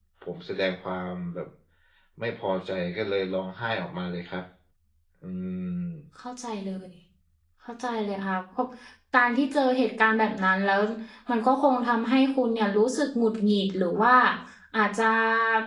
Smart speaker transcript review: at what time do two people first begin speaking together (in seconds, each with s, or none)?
none